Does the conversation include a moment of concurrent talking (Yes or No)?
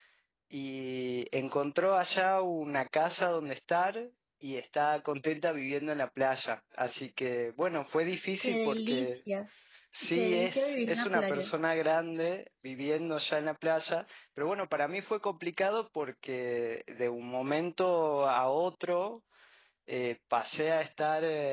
Yes